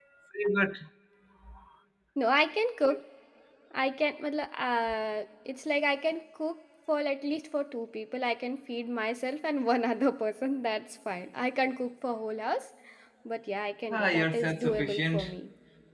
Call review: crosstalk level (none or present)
present